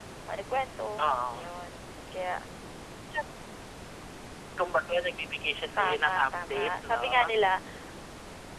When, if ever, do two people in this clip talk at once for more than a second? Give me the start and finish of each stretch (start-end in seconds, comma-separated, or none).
5.8-7.0